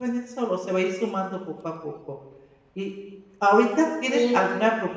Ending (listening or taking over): listening